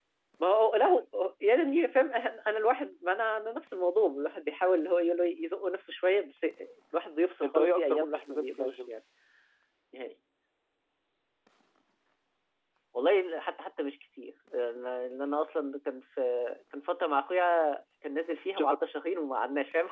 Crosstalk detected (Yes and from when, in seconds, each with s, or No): Yes, from 7.4 s